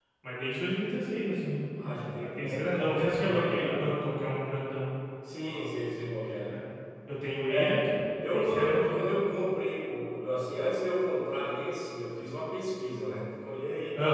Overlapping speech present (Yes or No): Yes